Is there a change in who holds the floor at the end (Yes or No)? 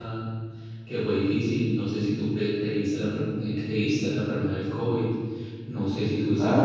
No